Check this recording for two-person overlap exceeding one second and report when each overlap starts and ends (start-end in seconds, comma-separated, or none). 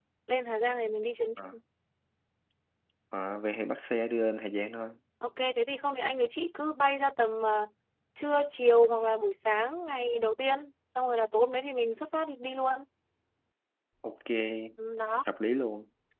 none